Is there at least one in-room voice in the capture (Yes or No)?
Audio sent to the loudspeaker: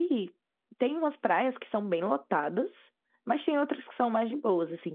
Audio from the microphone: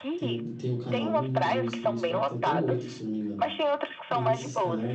Yes